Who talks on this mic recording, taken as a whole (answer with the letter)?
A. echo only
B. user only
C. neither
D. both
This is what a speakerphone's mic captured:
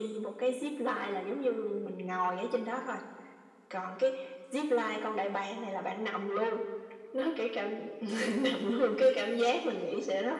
A